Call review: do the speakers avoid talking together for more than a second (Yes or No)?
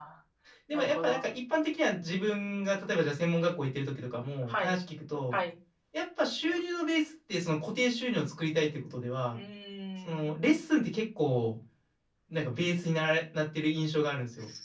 Yes